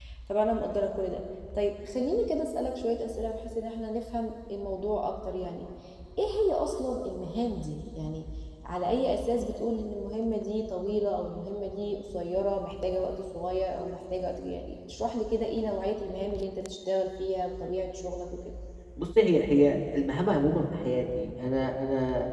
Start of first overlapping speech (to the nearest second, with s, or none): none